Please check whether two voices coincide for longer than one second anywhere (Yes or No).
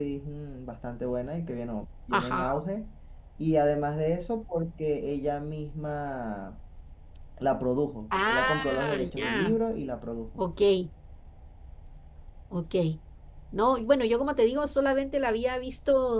Yes